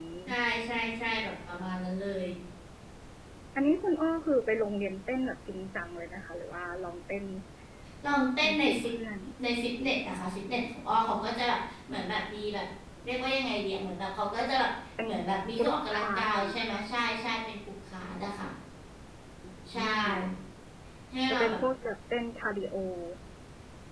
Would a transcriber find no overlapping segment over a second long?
No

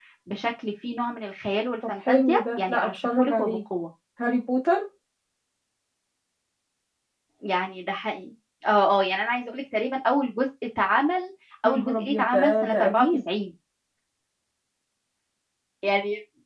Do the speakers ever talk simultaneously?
Yes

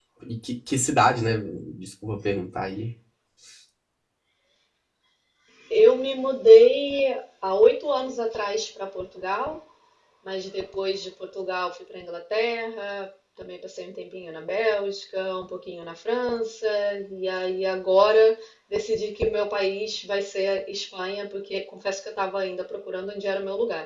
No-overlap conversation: Yes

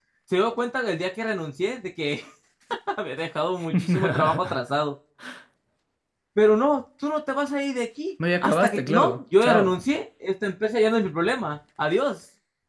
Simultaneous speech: Yes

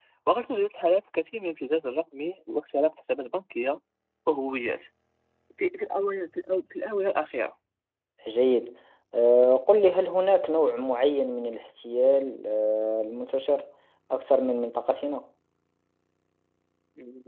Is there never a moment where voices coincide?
Yes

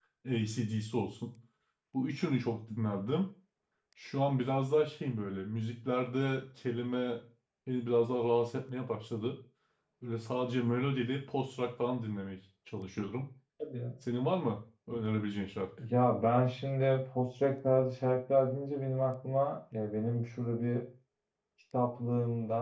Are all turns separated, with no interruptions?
Yes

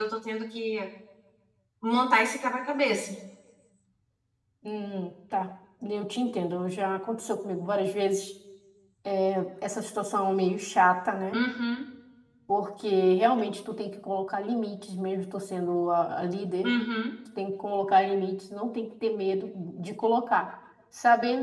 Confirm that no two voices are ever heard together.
Yes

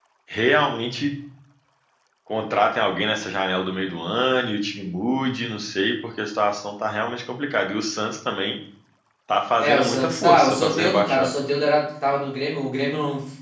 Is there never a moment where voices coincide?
No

